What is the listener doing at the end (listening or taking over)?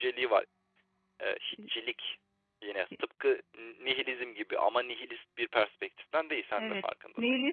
taking over